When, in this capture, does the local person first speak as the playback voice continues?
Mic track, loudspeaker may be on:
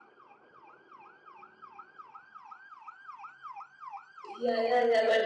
4.3 s

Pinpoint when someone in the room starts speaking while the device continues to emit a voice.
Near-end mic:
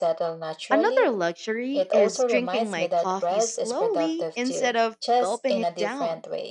0.7 s

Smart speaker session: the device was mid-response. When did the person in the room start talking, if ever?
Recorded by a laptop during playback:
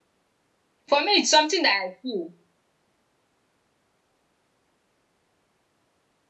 0.9 s

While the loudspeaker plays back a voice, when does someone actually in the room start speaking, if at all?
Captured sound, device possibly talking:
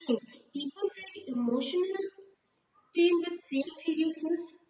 none

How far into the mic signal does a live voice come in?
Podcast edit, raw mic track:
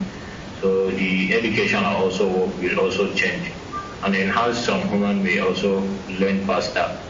none

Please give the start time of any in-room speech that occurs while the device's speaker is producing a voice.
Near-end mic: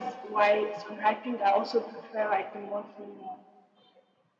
none

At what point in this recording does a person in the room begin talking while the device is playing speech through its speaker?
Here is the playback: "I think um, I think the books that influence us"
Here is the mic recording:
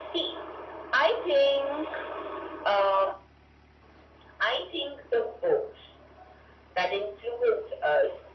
none

